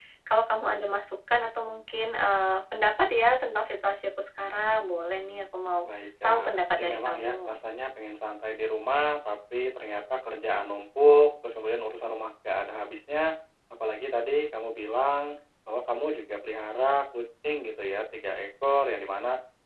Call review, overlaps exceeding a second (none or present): present